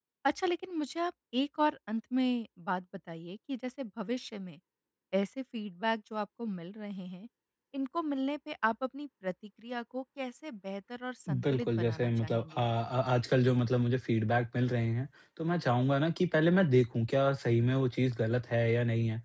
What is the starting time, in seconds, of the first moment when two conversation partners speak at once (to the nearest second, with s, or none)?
11 s